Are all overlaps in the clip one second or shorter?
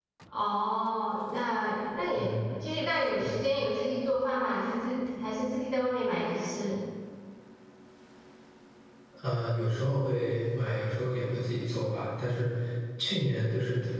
Yes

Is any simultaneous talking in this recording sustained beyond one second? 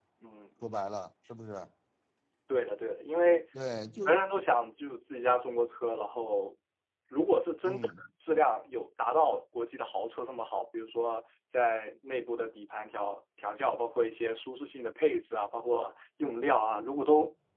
No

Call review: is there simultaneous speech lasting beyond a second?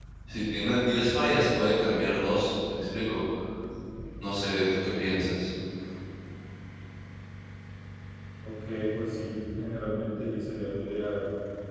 No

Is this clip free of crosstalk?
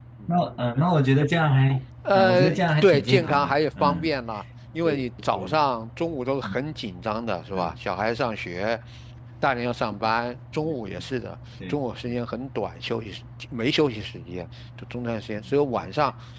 No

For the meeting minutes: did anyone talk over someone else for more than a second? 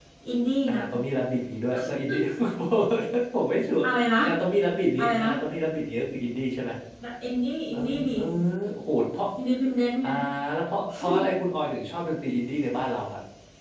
No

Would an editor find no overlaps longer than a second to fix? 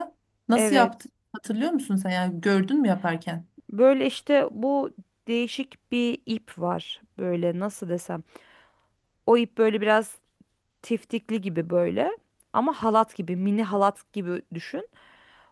Yes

